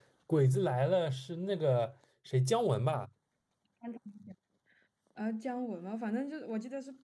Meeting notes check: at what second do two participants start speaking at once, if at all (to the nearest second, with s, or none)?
none